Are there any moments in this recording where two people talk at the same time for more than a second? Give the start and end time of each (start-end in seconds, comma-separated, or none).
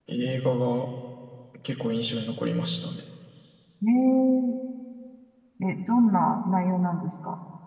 none